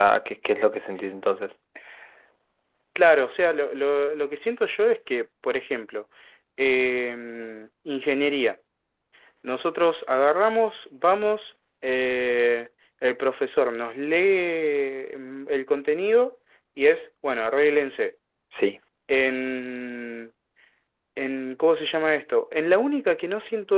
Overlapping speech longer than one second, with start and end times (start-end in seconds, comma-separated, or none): none